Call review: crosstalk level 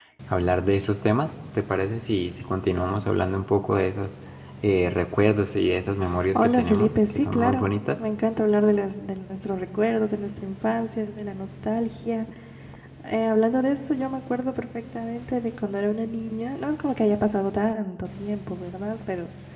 present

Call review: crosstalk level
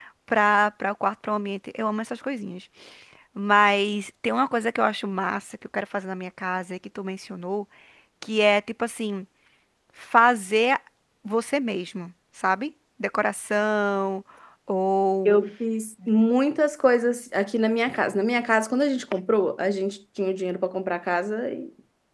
none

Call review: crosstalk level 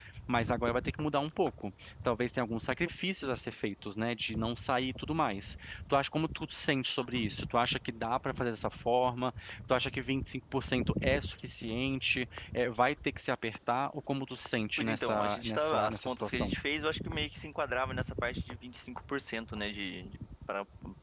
present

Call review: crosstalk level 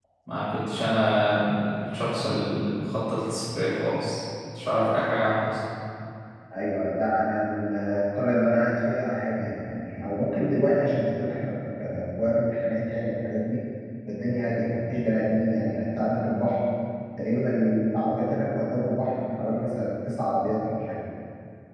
none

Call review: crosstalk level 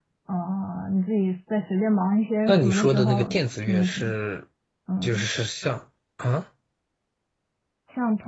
present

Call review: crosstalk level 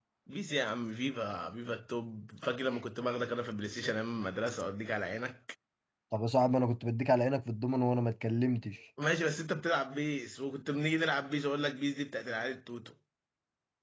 none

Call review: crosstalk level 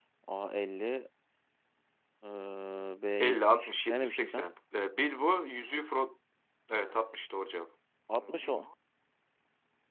present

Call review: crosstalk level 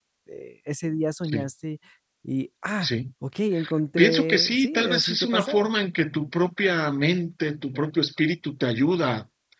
present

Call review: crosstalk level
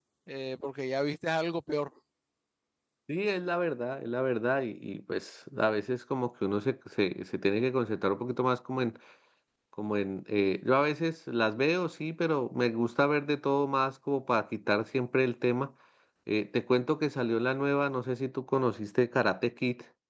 none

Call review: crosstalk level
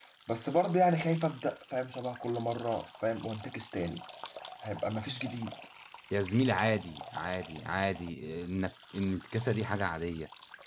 none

